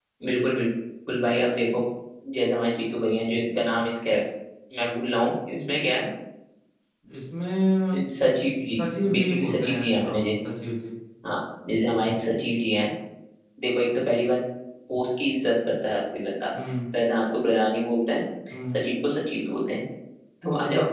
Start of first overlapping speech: 8.8 s

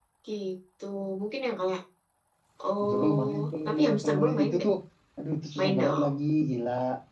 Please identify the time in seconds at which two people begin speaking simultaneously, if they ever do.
2.9 s

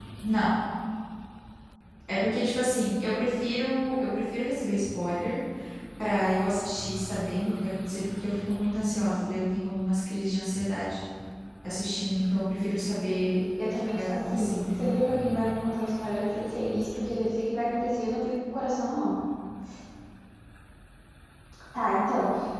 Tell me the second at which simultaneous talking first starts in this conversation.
13.6 s

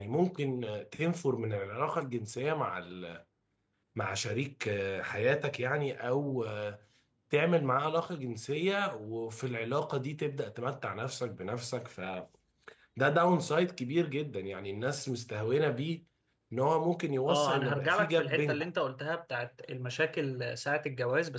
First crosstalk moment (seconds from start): 17.3 s

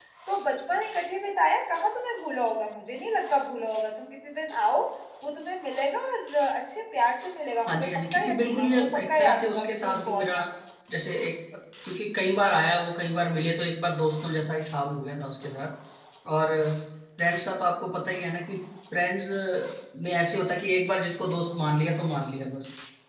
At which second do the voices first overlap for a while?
7.6 s

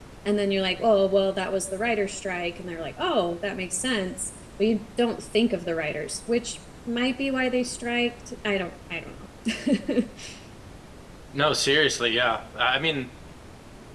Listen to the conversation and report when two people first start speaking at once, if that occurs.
none

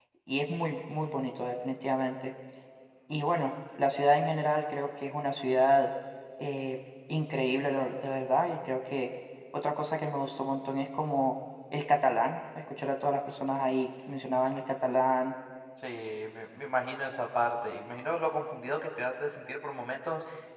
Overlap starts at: none

